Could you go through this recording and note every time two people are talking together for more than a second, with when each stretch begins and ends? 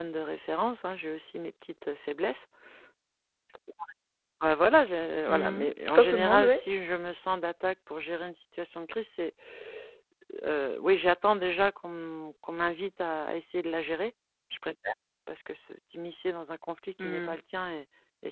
5.3-6.5

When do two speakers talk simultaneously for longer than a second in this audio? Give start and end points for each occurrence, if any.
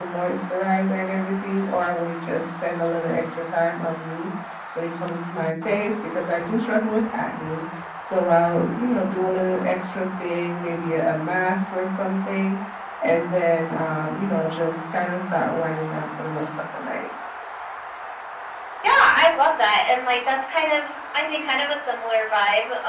none

